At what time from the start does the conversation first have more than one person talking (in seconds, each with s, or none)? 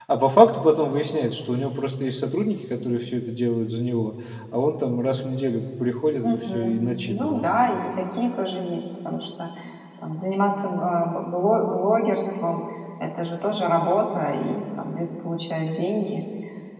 6.2 s